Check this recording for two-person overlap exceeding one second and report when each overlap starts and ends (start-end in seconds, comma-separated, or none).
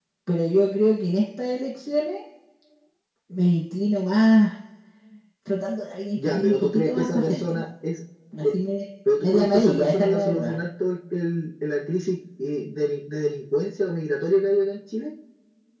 6.2-7.6, 9.2-10.5